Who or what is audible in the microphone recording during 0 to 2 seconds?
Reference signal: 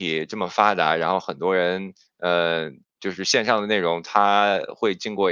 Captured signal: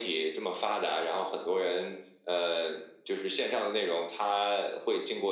echo only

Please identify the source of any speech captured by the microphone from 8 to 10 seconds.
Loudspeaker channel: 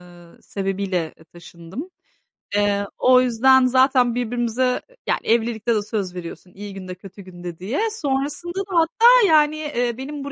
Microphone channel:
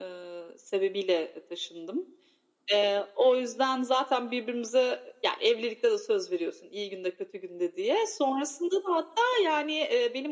echo only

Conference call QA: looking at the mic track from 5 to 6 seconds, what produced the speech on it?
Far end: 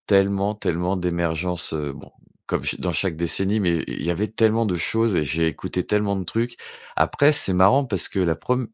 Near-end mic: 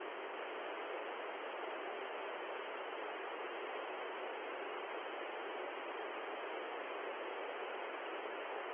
neither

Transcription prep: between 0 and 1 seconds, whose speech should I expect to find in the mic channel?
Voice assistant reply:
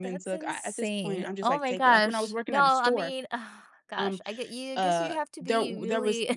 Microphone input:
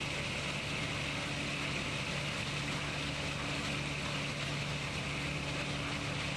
neither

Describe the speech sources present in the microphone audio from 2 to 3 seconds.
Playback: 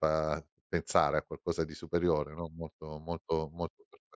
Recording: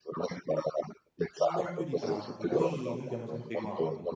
both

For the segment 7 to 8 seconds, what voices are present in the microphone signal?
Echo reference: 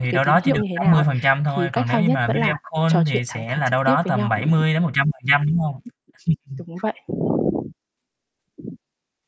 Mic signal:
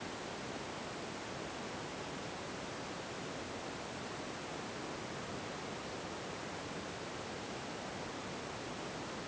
neither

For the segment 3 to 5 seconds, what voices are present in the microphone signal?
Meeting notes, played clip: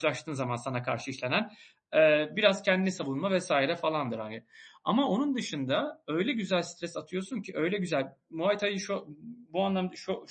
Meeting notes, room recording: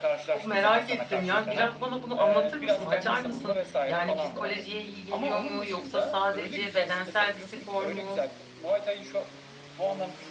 both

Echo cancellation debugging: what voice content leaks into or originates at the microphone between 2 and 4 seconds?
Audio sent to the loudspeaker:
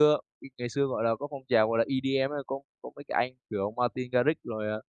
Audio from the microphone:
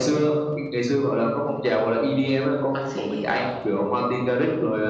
both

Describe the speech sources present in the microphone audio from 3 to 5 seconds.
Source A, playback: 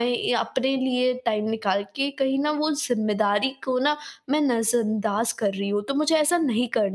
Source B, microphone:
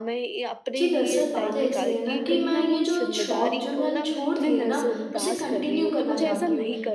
both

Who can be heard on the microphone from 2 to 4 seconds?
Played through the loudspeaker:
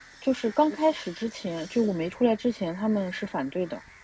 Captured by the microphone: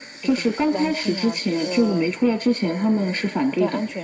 both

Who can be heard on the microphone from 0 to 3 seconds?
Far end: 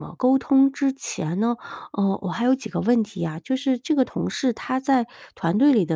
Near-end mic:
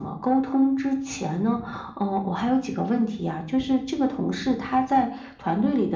echo only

